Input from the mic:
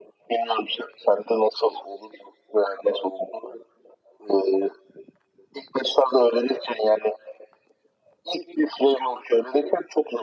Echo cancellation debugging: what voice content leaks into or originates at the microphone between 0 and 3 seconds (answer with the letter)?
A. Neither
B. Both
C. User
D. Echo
D